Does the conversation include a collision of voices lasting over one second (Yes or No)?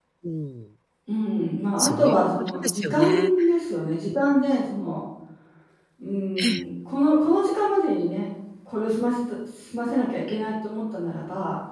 Yes